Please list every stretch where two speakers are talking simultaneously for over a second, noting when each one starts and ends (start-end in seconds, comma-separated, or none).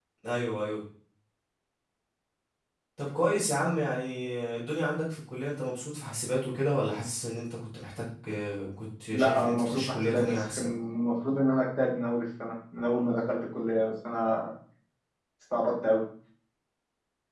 9.1-10.7